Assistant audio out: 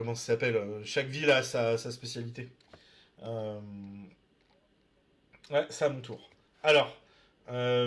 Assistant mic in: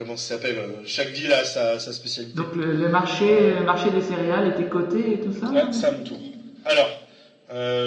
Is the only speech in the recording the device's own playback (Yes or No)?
No